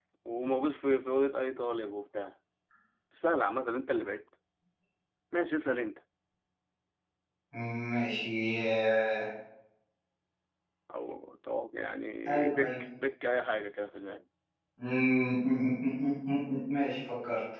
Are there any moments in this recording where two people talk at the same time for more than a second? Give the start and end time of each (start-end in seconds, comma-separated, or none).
none